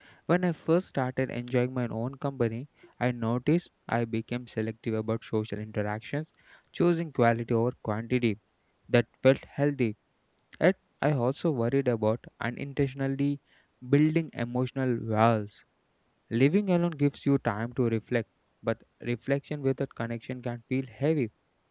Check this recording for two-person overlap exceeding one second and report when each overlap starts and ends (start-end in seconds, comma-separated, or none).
none